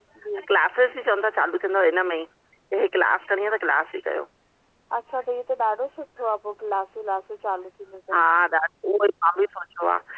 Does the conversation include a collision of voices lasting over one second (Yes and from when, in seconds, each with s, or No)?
No